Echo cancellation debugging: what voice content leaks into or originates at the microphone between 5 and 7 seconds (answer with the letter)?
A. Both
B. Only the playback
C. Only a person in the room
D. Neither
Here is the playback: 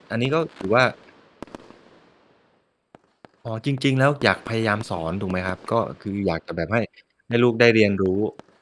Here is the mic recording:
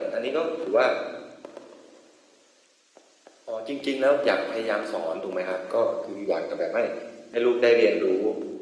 B